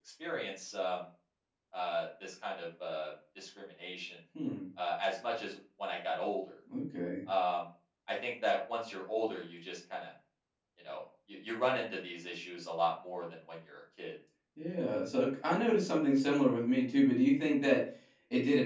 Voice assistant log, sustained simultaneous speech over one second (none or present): none